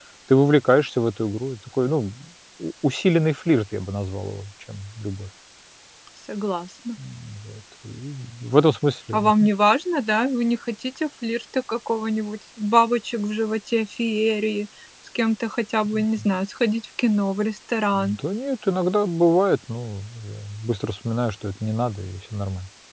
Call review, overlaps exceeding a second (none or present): none